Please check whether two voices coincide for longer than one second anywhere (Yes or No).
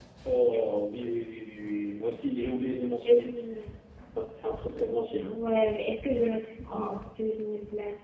No